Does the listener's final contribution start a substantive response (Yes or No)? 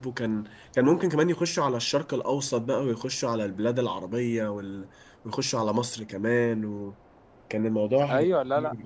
Yes